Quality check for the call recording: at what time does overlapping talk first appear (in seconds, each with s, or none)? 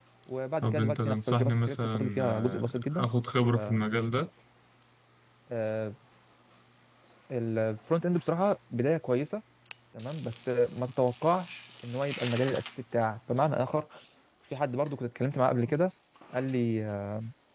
0.6 s